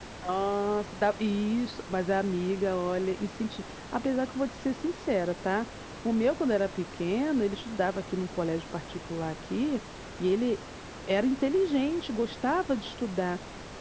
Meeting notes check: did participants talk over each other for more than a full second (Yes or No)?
No